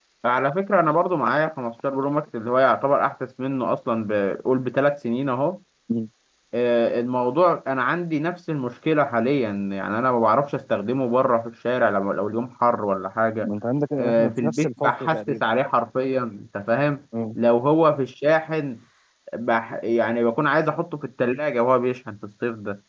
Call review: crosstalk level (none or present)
present